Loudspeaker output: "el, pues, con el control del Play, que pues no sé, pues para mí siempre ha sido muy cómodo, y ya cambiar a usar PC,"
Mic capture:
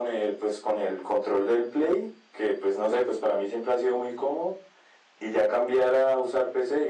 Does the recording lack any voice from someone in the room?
Yes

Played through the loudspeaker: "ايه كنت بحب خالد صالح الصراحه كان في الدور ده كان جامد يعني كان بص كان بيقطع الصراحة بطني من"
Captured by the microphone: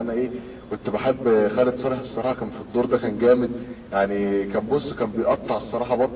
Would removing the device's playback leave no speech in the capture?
Yes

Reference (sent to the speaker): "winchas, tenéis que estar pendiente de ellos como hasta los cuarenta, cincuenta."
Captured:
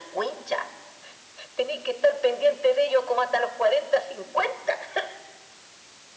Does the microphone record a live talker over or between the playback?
No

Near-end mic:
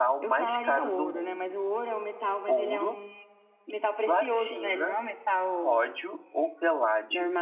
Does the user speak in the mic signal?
Yes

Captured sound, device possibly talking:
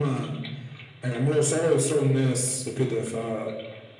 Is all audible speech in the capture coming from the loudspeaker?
Yes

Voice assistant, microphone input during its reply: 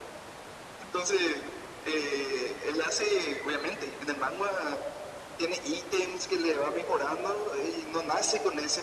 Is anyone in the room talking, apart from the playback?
No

